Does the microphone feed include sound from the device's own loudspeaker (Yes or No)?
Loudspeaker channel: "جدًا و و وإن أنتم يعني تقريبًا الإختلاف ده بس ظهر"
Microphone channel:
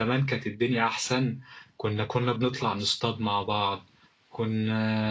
No